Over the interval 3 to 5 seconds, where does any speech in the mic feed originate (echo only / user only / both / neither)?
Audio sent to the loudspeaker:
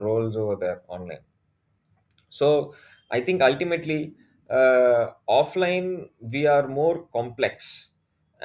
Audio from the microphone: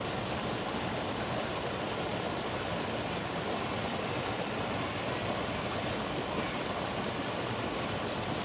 neither